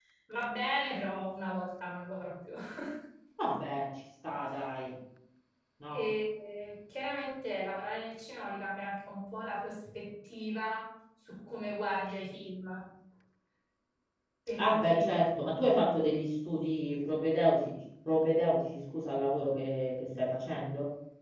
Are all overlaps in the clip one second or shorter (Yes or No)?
Yes